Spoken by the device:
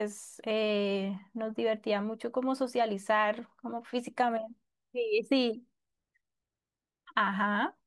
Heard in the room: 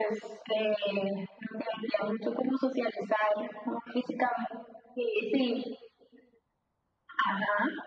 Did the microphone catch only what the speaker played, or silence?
Yes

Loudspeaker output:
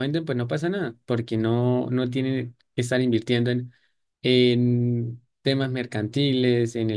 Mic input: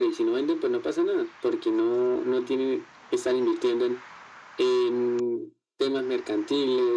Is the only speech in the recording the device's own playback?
Yes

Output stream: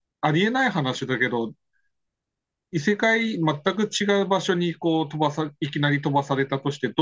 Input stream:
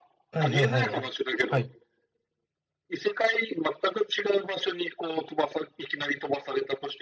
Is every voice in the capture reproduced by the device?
No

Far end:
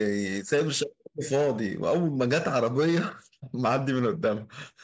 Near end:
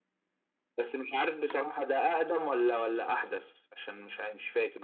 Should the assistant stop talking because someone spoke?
Yes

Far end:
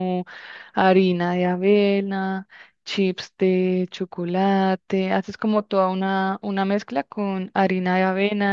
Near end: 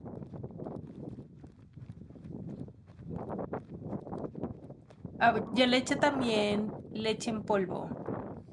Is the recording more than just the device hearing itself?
Yes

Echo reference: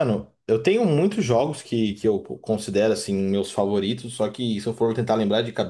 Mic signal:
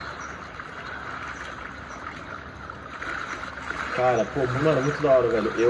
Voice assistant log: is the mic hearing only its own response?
No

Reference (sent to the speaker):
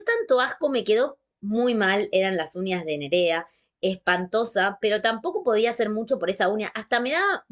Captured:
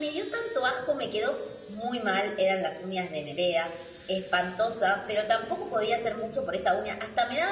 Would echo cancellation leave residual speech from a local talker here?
No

